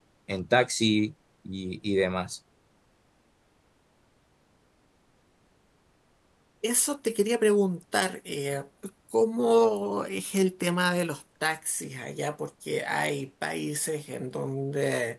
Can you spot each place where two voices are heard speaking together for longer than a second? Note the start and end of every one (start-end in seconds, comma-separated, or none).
none